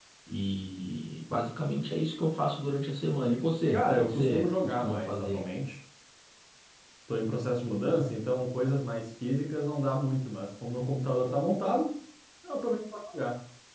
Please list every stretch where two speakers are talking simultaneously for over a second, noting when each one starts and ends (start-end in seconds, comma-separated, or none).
3.7-5.4